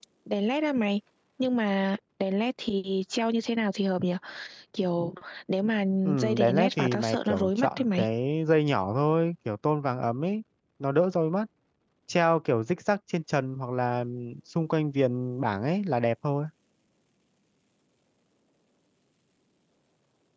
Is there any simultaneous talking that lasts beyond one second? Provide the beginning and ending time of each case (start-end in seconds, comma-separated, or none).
6.0-8.1